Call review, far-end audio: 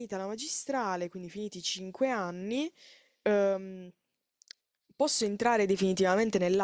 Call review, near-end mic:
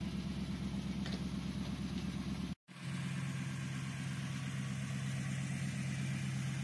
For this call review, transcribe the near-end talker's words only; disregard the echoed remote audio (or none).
none